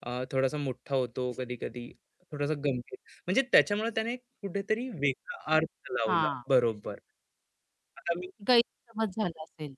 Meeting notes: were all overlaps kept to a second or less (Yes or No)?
Yes